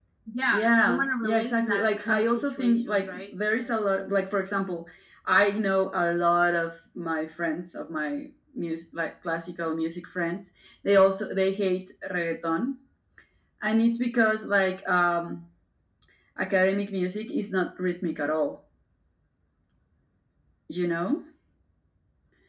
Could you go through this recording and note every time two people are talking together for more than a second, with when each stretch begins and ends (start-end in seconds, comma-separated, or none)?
0.5-4.1